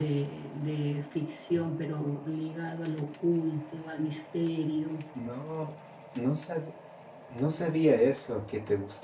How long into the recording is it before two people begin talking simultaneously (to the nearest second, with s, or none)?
none